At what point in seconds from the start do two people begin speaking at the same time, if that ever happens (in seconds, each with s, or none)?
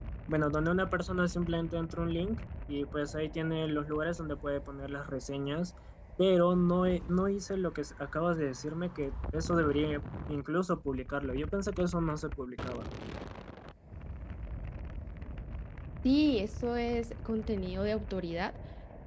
none